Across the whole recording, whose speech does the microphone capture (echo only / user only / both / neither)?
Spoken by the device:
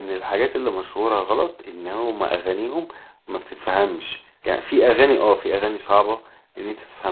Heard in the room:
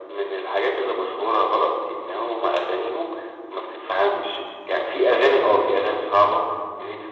echo only